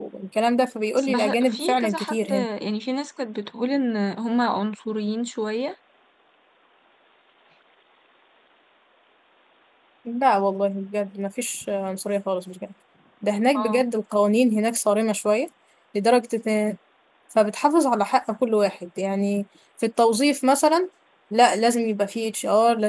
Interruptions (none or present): present